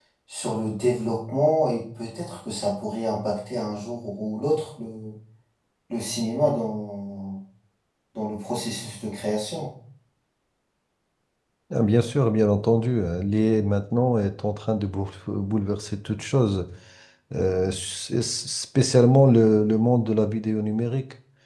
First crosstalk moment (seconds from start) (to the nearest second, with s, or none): none